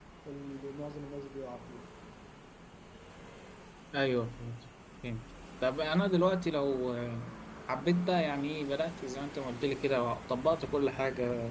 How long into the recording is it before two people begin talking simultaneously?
none

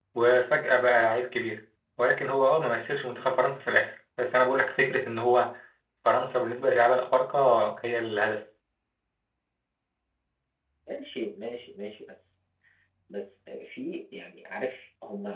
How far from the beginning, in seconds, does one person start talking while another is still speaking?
none

